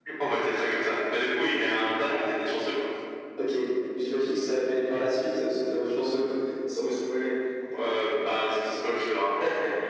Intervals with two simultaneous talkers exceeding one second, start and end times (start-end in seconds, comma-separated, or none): none